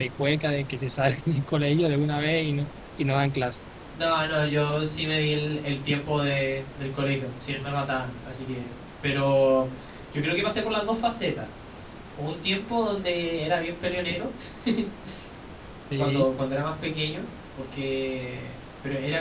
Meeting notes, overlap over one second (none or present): none